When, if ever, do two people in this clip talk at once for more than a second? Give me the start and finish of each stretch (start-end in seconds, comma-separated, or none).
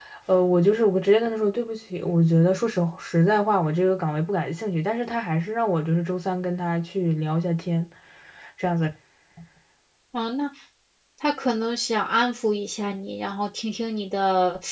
none